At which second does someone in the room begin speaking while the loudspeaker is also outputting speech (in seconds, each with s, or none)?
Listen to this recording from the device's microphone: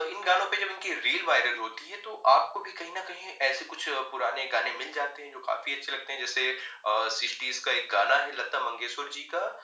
none